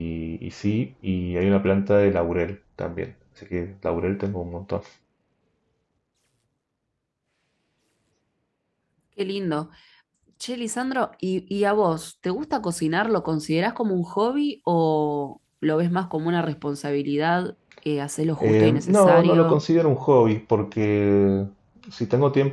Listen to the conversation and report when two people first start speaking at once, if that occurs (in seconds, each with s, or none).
18.4 s